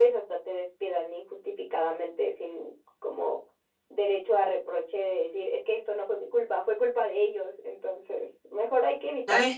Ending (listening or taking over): taking over